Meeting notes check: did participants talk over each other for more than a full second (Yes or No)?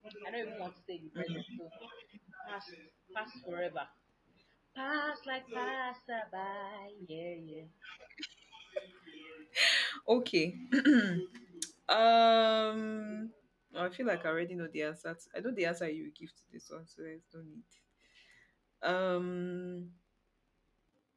No